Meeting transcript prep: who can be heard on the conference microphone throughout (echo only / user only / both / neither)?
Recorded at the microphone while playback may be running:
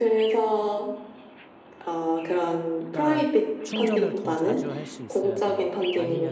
both